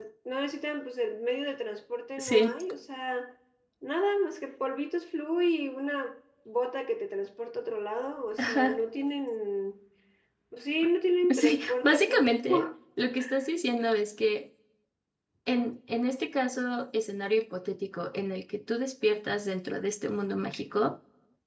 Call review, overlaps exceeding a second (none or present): present